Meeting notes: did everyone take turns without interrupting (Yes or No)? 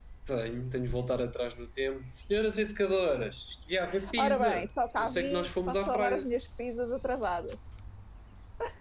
No